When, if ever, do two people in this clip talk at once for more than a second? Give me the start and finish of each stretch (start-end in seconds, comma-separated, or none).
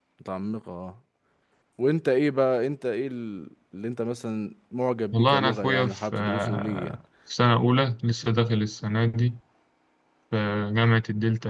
5.1-7.0